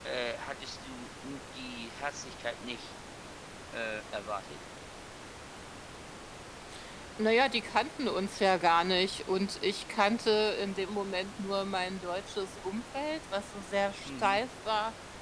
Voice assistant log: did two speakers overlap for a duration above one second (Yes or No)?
No